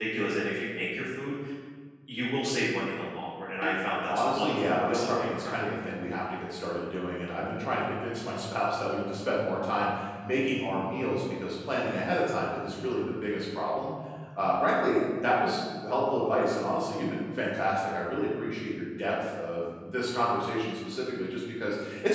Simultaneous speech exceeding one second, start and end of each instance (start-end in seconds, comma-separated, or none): 4.1-5.5